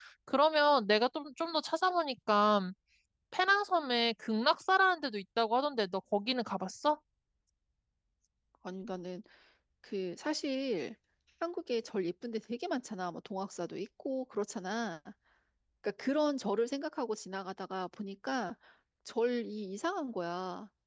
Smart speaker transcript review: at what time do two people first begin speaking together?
none

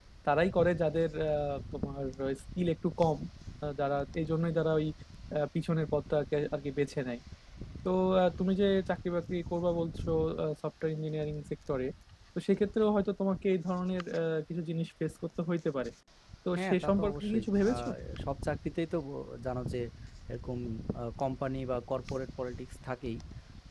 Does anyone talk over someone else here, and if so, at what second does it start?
16.6 s

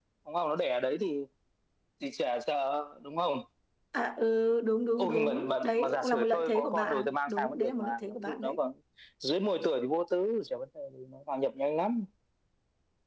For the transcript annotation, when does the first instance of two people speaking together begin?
5.0 s

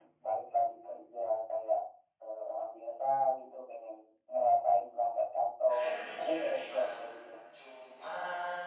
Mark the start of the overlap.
5.7 s

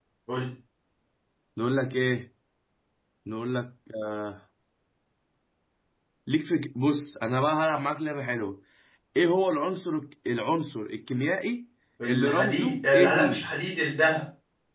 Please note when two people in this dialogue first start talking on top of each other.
12.1 s

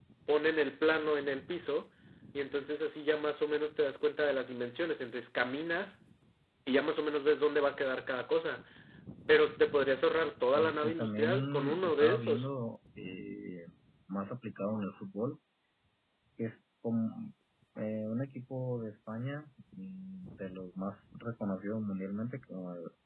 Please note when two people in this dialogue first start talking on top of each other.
10.5 s

